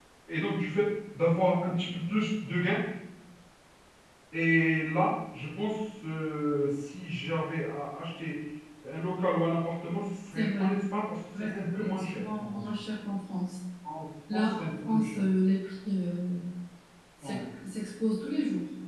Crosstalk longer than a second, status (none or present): present